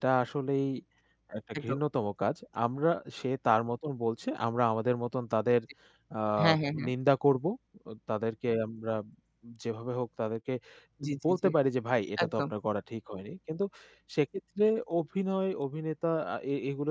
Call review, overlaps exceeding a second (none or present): none